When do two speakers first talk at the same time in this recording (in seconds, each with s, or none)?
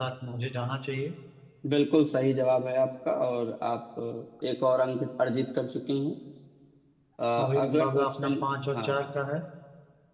7.6 s